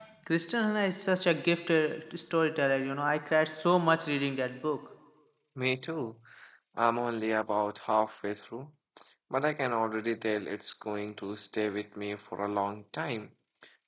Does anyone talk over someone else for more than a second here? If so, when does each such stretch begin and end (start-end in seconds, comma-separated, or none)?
none